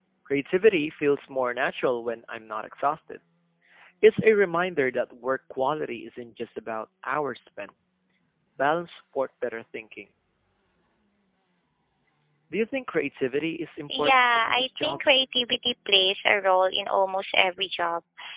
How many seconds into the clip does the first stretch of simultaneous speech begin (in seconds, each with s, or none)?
13.9 s